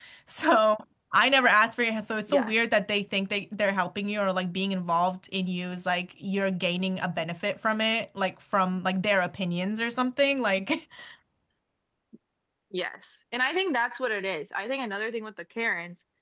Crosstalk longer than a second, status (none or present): none